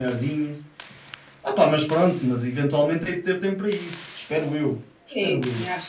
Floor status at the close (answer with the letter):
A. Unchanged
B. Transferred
B